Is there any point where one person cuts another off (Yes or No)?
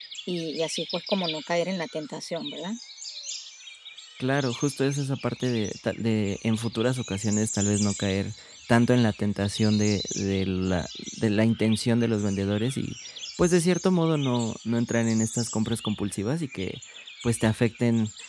No